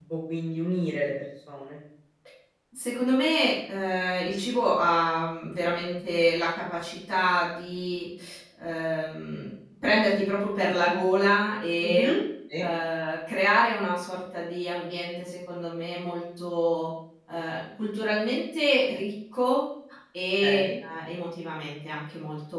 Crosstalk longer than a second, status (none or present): none